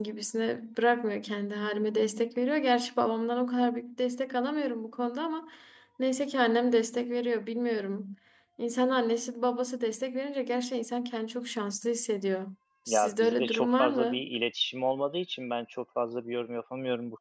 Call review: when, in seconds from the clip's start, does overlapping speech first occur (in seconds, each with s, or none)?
12.9 s